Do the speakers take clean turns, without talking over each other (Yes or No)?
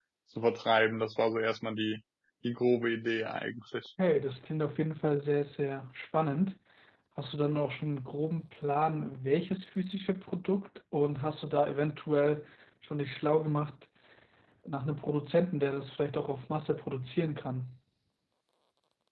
Yes